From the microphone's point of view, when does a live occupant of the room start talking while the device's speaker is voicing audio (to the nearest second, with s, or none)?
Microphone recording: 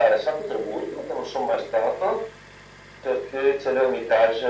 none